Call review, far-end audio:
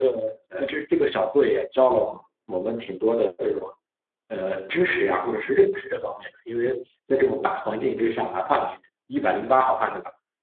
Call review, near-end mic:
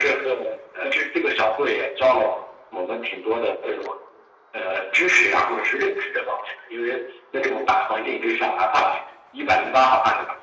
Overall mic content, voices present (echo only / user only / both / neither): echo only